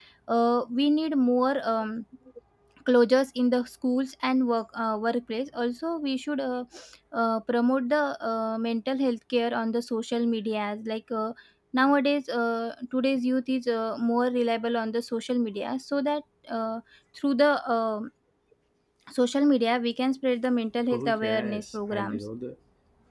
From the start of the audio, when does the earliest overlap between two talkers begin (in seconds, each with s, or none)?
20.9 s